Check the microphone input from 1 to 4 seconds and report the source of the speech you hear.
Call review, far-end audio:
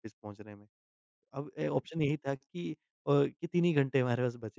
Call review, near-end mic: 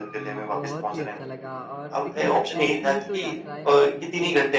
both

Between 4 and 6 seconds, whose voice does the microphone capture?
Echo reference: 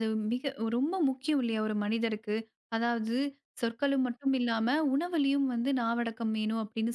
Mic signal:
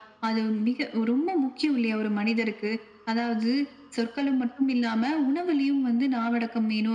echo only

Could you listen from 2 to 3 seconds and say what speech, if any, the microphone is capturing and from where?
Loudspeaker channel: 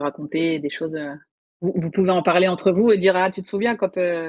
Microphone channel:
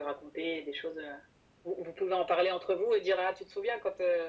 echo only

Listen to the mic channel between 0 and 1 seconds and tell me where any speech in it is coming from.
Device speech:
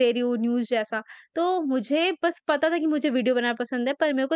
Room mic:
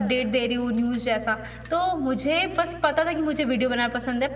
echo only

